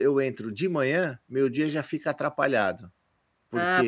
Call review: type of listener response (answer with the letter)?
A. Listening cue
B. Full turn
B